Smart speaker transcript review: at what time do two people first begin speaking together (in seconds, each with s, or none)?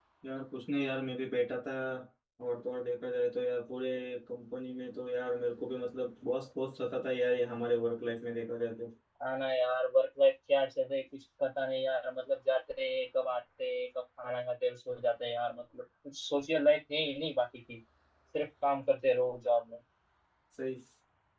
none